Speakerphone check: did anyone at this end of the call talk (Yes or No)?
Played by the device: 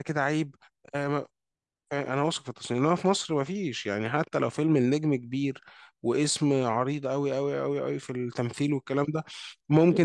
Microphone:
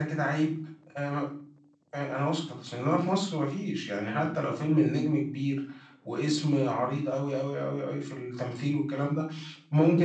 No